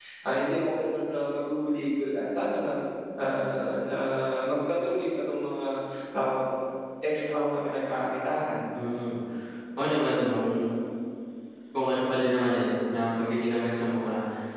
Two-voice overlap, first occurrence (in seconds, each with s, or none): none